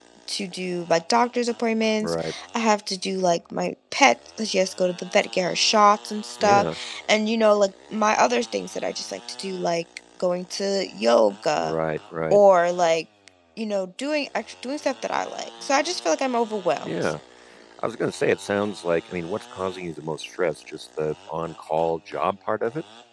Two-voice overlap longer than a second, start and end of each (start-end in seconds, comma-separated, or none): none